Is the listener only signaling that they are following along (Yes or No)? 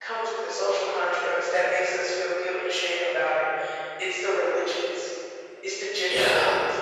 Yes